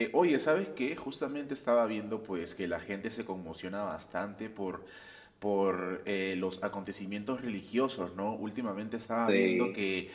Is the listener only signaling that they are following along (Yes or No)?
Yes